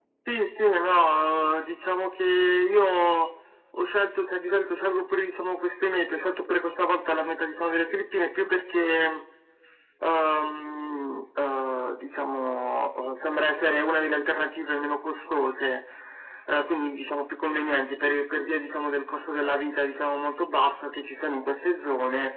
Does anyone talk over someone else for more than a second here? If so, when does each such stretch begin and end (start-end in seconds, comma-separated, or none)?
none